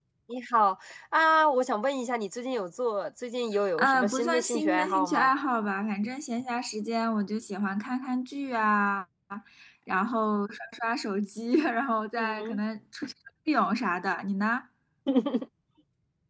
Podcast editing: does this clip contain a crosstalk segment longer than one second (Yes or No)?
Yes